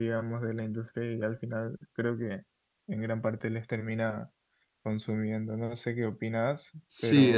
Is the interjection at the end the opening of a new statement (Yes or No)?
Yes